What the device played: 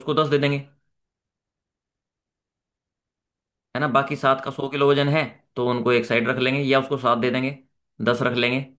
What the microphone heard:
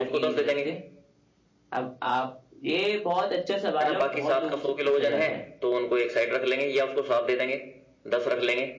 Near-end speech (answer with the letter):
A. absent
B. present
B